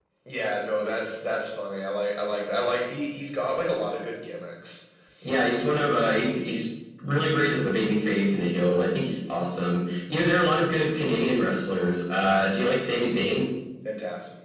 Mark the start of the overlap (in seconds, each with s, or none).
none